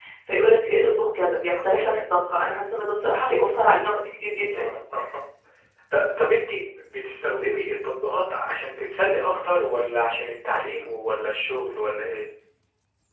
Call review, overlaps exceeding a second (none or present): none